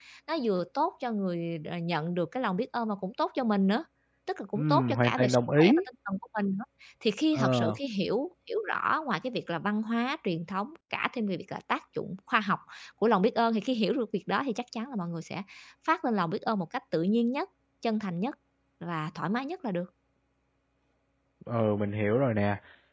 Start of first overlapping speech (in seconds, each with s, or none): 4.5 s